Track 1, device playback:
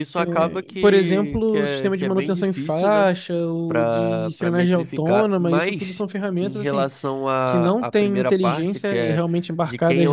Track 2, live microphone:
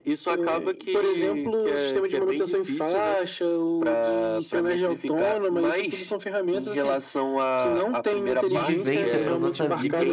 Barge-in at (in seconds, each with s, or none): 8.4 s